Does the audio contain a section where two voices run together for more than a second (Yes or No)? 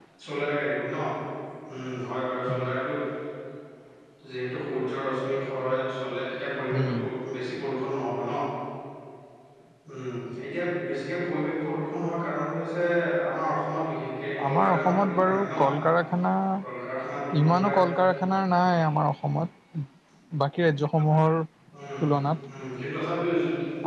Yes